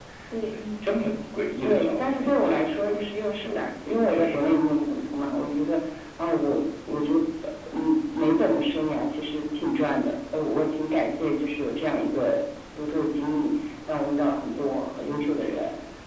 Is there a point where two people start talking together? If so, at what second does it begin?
1.6 s

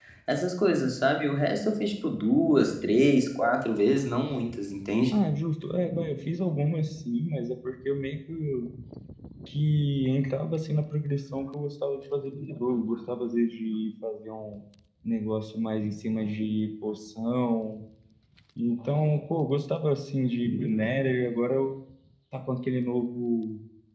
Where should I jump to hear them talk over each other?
none

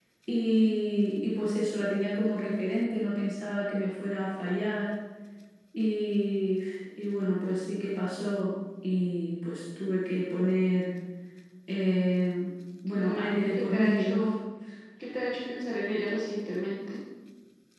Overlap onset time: 12.9 s

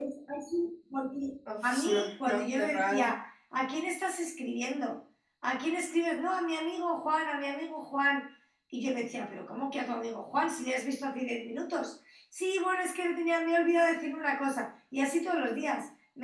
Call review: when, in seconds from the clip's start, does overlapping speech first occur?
1.5 s

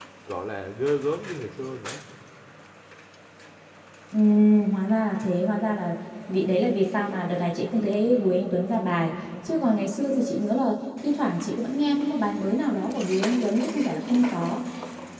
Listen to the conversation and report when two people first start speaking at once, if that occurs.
none

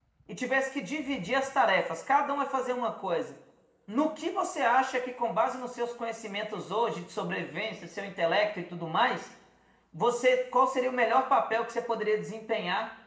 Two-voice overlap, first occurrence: none

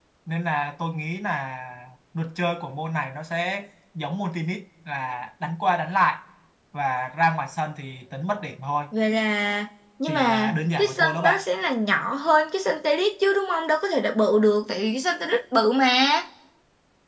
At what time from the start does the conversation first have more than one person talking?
10.0 s

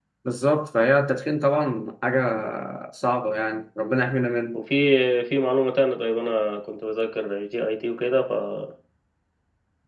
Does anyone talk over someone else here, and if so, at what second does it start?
none

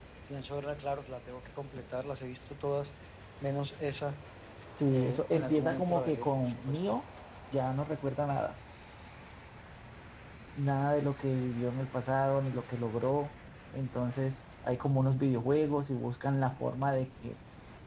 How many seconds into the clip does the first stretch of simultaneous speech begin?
4.9 s

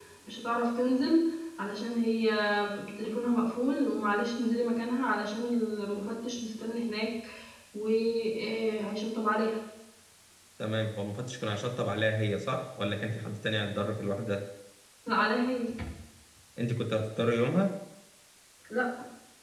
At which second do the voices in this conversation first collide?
none

